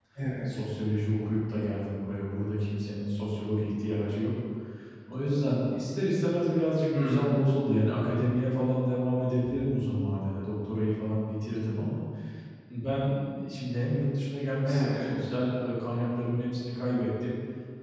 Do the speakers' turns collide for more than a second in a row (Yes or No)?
No